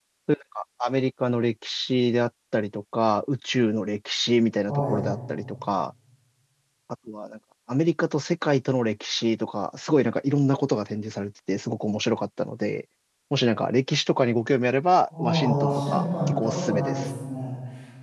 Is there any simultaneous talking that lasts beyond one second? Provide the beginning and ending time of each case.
15.2-17.0

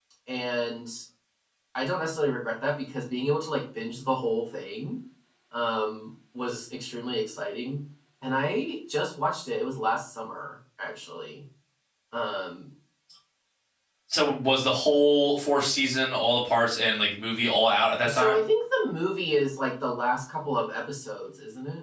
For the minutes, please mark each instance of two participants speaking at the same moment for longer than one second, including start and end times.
none

